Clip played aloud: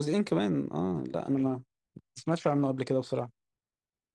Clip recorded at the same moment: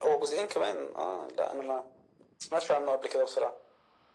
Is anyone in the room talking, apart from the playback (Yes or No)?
No